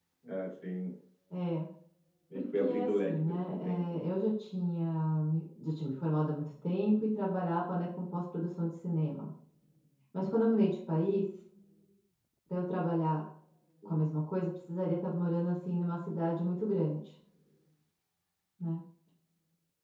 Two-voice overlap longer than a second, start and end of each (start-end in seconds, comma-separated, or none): 2.3-4.0